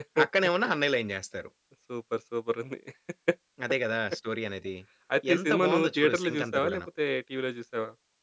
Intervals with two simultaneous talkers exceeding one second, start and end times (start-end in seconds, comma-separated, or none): 5.3-6.9